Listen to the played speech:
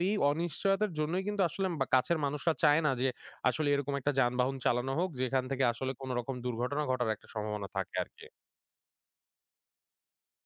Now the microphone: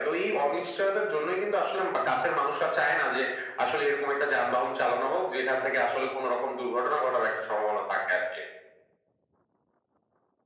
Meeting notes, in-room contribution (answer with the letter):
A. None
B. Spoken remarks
A